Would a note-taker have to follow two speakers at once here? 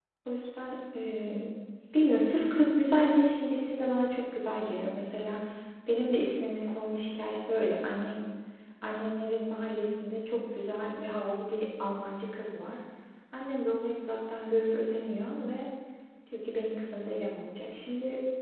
No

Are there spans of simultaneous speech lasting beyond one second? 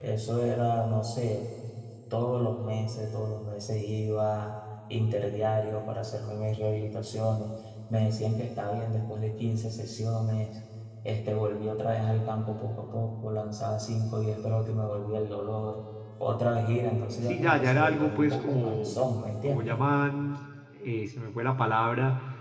Yes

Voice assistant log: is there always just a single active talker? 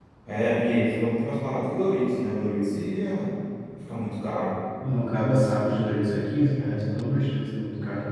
Yes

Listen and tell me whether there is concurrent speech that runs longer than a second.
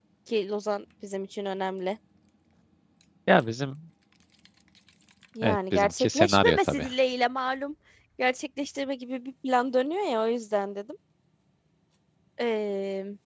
Yes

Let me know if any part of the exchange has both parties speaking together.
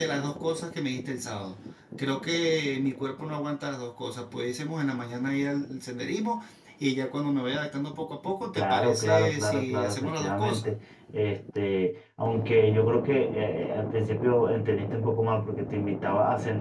Yes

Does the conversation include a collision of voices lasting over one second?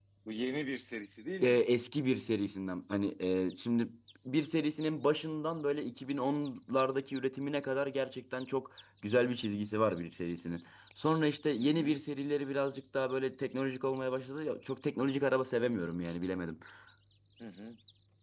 No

